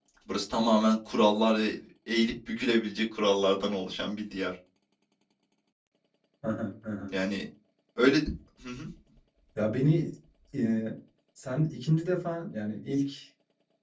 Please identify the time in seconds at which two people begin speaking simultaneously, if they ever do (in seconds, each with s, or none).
none